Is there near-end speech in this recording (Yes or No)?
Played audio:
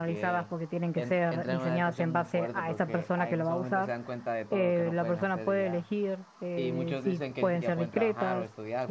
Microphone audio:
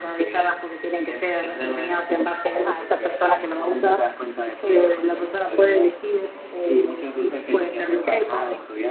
No